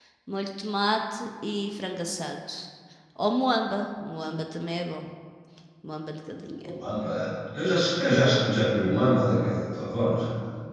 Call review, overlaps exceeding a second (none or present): none